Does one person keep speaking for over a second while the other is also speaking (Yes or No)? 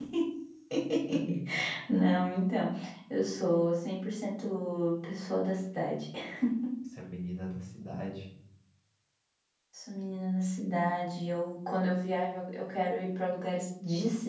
No